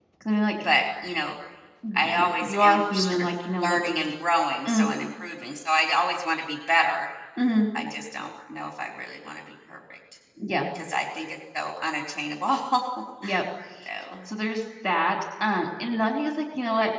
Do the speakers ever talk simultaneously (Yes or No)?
Yes